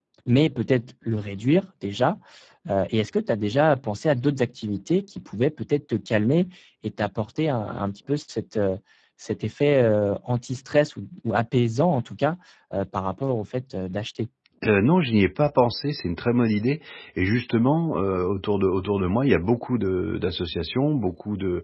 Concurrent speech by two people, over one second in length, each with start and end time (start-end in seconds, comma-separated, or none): none